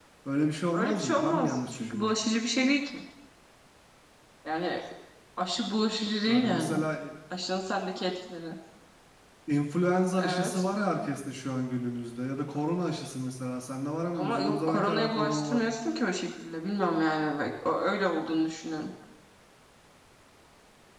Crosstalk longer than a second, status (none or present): present